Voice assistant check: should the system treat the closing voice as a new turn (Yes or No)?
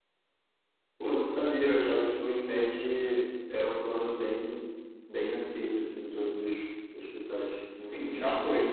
Yes